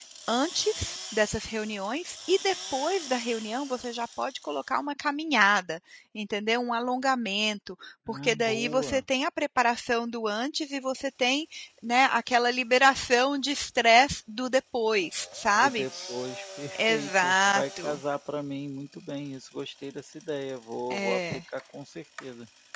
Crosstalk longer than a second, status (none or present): present